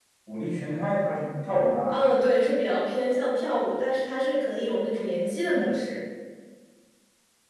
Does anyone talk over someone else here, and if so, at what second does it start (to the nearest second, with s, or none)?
none